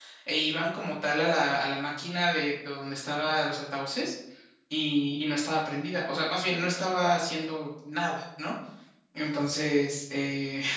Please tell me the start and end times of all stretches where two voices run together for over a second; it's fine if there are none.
none

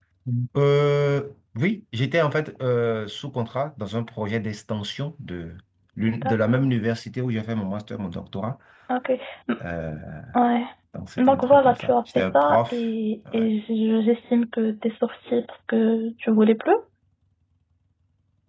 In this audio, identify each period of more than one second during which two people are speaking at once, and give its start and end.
11.2-12.8

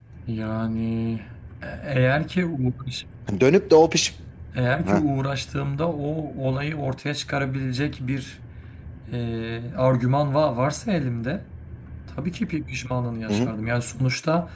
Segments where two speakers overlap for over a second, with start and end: none

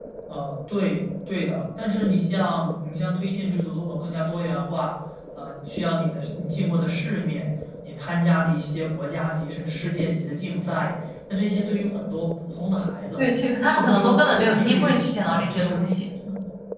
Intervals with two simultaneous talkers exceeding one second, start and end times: 13.7-15.8

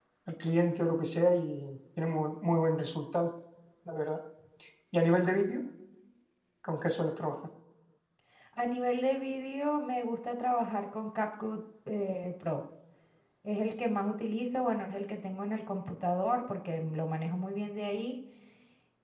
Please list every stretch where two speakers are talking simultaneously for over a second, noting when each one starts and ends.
none

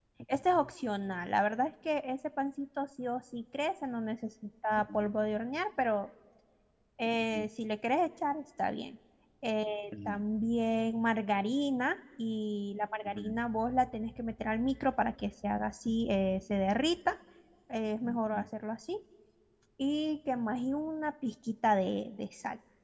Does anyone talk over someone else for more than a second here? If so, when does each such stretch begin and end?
none

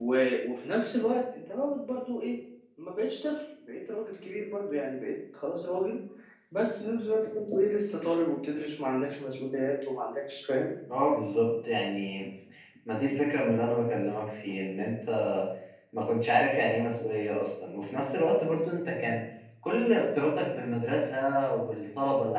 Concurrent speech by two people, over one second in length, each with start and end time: none

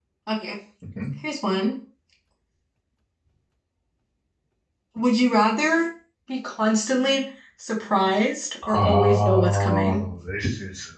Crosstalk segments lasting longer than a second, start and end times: 8.7-10.0

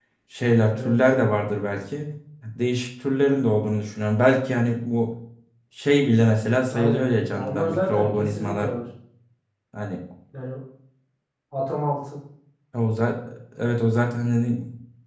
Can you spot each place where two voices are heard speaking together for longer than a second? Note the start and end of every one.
6.7-8.7

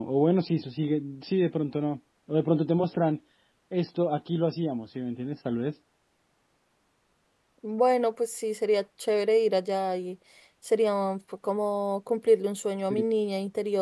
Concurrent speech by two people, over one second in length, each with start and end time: none

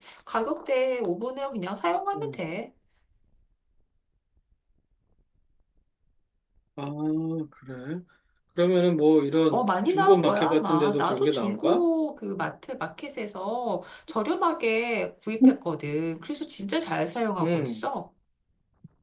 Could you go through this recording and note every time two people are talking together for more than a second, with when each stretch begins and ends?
9.5-11.8

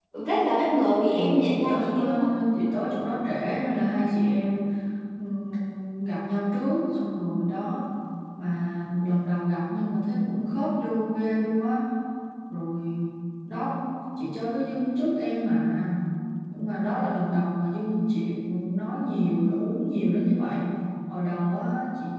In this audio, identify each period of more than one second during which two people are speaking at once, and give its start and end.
1.1-2.3

